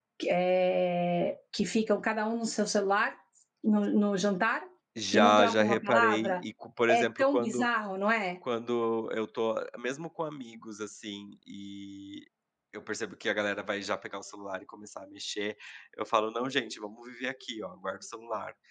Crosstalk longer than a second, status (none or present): present